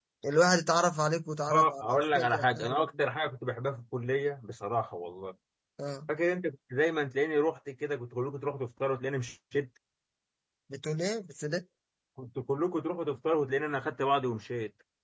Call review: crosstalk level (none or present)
present